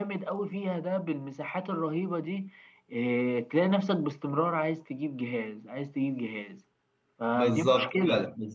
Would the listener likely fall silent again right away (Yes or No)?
No